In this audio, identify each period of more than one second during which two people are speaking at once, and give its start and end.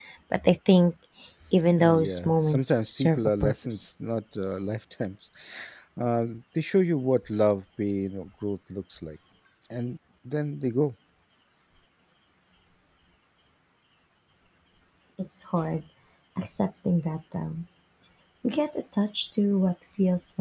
1.8-3.9

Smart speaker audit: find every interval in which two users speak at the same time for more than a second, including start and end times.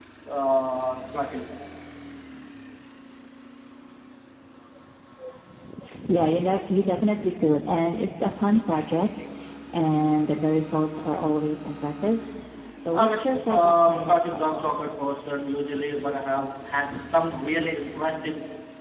12.9-14.7

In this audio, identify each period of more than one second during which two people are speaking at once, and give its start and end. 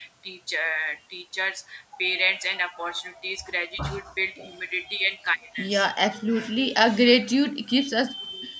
none

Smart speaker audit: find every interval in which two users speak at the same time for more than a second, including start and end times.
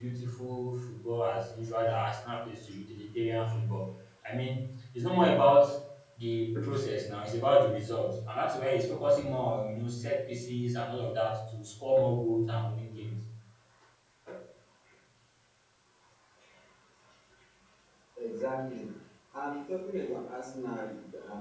none

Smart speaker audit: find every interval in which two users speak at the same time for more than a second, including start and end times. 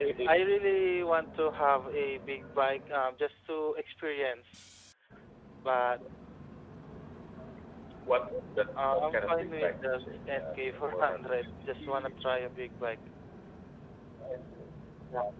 8.9-12.1

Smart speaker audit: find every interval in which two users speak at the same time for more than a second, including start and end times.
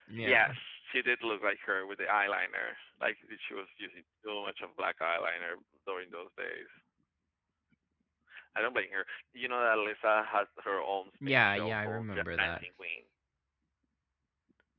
11.3-12.6

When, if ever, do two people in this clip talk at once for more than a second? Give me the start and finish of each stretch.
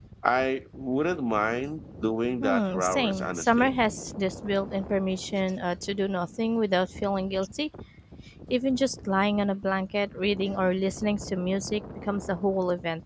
2.4-3.7

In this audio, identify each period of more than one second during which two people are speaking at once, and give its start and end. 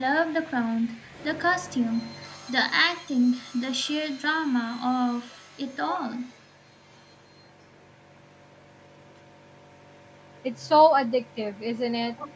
none

